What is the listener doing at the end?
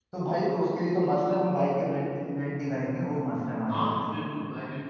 taking over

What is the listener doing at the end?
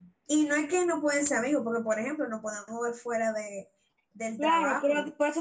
taking over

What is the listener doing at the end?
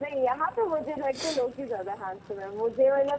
listening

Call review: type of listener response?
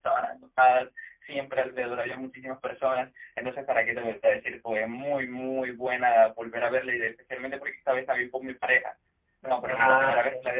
listening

